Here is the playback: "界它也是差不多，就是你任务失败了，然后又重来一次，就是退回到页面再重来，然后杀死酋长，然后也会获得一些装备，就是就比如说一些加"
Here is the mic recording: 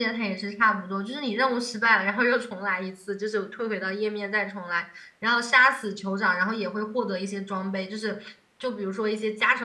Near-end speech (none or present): none